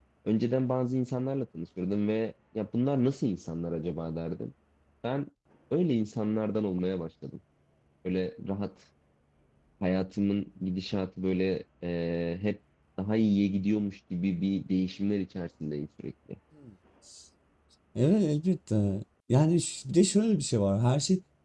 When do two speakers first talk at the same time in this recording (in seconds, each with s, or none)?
none